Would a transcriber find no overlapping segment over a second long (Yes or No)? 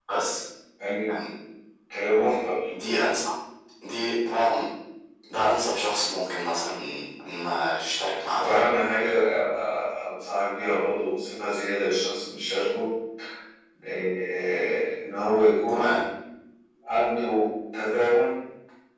Yes